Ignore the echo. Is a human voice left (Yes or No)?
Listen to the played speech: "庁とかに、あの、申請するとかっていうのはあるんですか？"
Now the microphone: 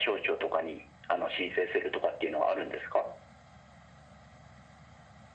No